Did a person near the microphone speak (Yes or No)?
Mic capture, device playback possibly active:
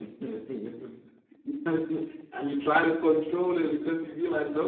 Yes